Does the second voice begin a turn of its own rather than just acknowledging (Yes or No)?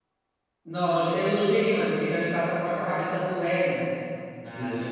No